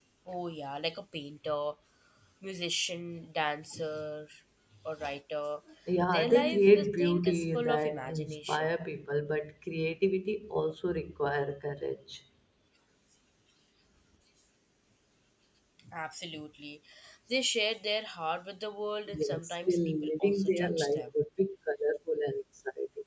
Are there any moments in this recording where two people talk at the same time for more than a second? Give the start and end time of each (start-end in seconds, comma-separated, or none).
6.1-8.7, 19.1-21.1